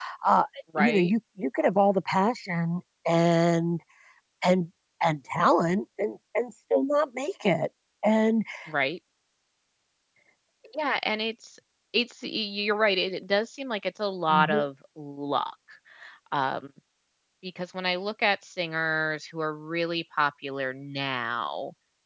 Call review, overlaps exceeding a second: none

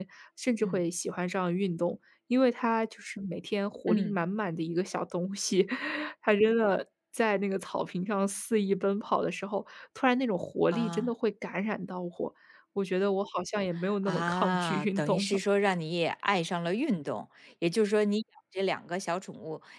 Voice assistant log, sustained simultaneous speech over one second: present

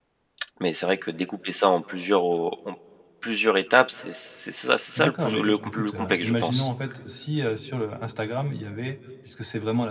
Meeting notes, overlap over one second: present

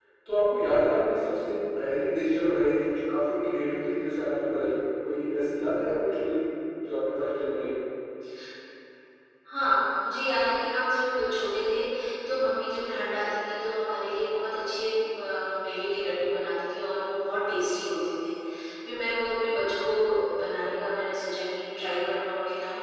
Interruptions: none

